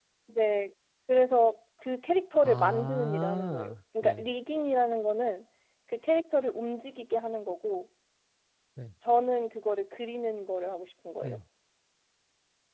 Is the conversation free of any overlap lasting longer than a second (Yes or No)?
No